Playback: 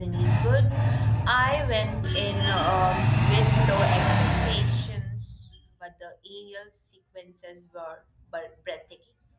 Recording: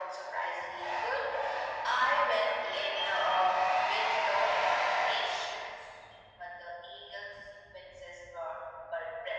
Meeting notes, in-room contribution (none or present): none